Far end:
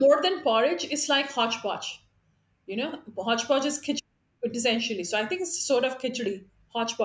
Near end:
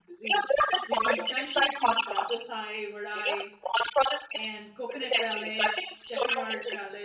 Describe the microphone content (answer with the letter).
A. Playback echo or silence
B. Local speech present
B